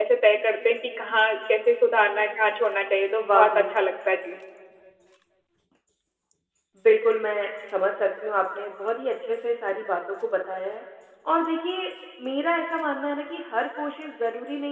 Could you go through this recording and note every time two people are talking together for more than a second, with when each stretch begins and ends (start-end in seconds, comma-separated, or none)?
none